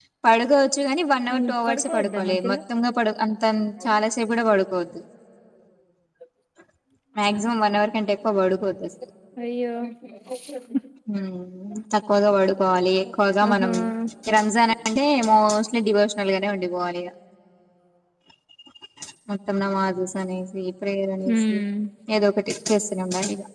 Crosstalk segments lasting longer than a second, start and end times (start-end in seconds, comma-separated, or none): 1.3-2.6